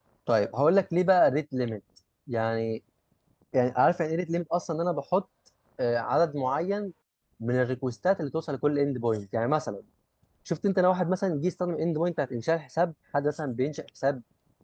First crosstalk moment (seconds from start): none

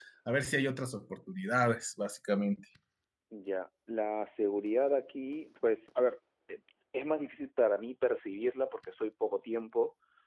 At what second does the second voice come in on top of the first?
none

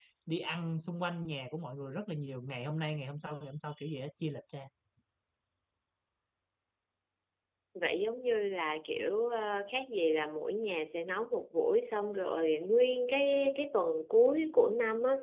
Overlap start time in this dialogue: none

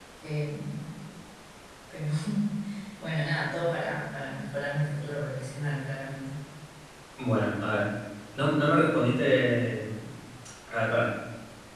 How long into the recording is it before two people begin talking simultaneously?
none

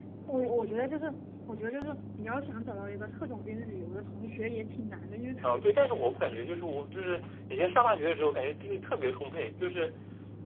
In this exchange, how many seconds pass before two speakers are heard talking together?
5.4 s

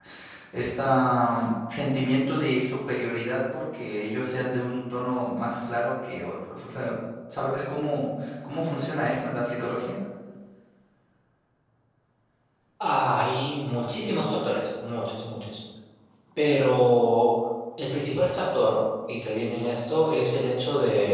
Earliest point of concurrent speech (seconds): none

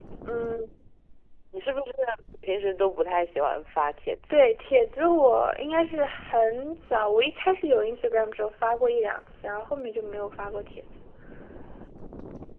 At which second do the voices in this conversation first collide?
none

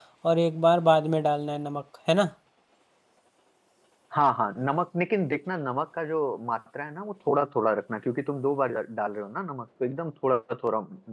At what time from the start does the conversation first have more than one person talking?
none

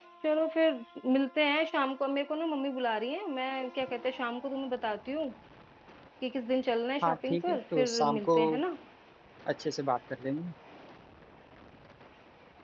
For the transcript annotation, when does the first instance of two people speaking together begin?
7.0 s

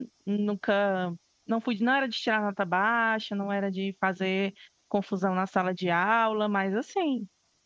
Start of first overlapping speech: none

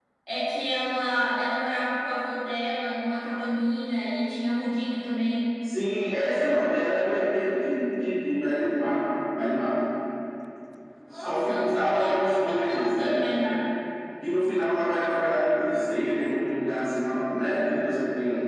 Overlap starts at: 11.1 s

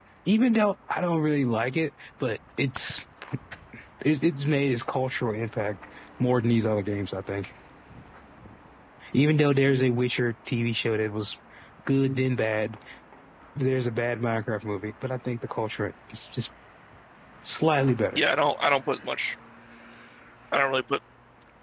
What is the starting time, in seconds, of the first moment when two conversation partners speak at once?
none

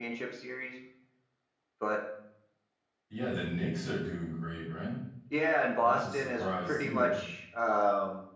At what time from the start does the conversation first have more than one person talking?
5.8 s

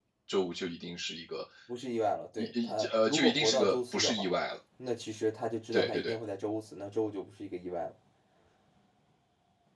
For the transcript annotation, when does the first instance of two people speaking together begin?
2.4 s

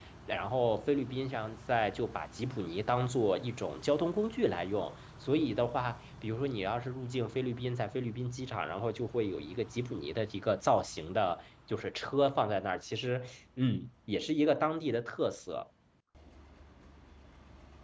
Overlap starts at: none

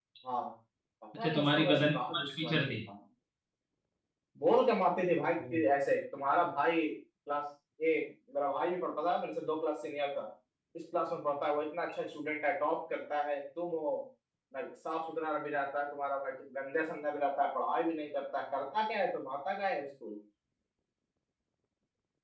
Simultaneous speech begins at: 1.2 s

